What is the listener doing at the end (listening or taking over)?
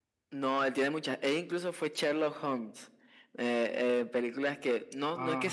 listening